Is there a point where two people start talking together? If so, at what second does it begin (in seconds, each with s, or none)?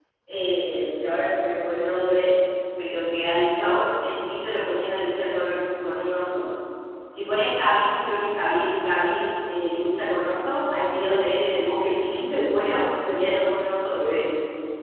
none